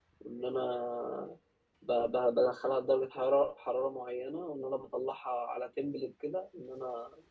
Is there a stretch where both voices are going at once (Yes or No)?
No